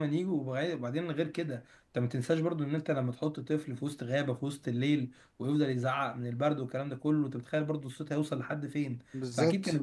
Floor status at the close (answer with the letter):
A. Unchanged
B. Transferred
B